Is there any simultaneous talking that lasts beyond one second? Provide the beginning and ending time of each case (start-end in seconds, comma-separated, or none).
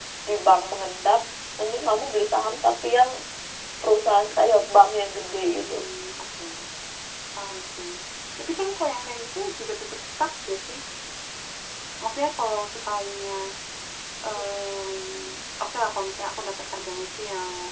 none